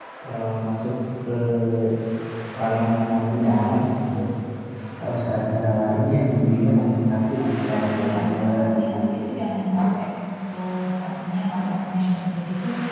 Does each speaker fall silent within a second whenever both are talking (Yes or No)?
No